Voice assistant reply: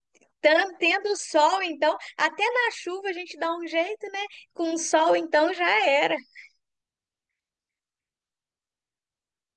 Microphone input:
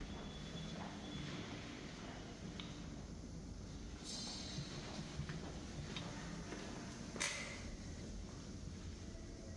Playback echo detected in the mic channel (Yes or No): No